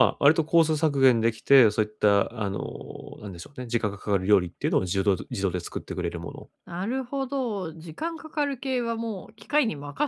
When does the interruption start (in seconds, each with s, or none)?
none